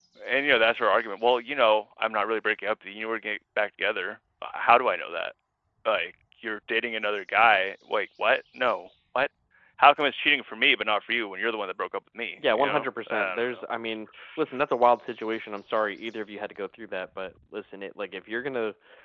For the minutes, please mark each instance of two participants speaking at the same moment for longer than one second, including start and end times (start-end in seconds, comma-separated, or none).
12.4-13.6